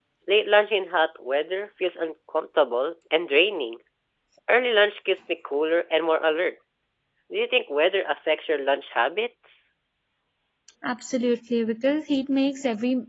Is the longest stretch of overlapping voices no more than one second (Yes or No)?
Yes